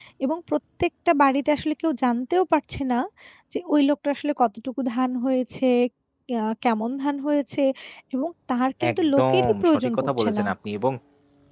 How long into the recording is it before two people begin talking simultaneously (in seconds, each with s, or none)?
8.9 s